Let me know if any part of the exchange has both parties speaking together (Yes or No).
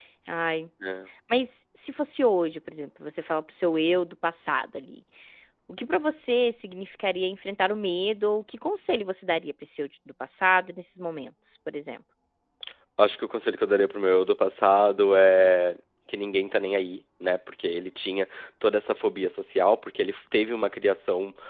No